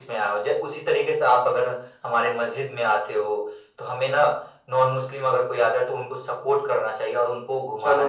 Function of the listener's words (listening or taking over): taking over